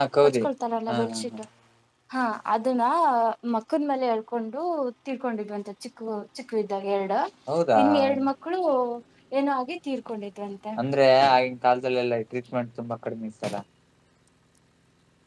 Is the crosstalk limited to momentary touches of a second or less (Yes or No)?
Yes